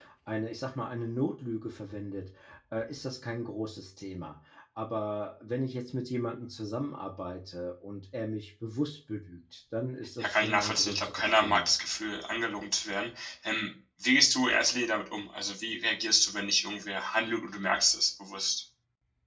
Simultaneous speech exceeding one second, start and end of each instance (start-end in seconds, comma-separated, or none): 10.2-11.7